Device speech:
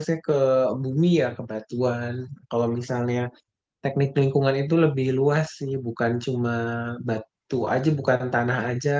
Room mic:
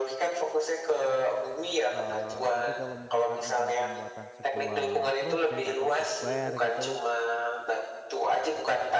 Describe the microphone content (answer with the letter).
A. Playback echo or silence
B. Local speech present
B